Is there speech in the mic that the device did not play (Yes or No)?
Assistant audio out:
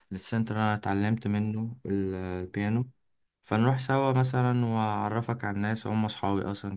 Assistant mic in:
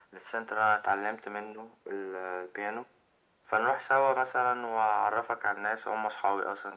No